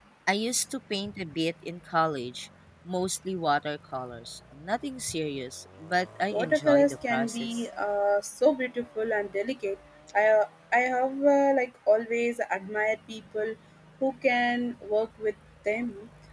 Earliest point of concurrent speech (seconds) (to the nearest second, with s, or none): 6 s